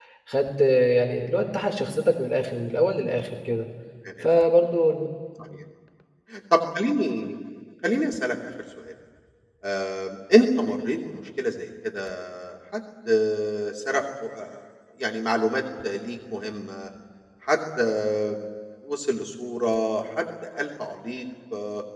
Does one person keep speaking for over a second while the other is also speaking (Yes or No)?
No